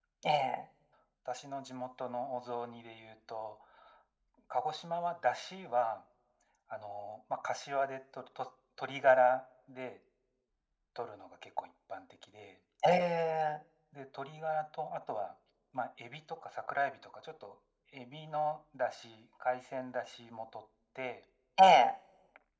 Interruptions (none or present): none